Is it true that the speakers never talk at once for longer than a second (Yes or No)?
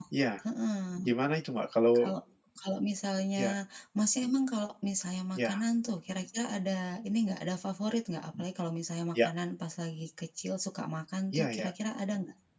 Yes